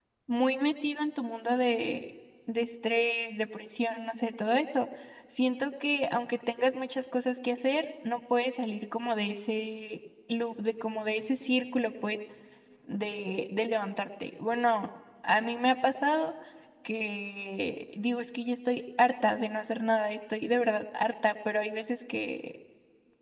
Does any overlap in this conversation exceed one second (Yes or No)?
No